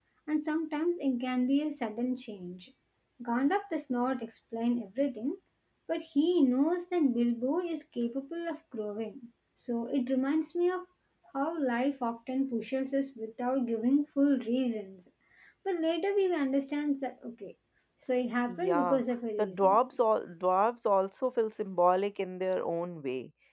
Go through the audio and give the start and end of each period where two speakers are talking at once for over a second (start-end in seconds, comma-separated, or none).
none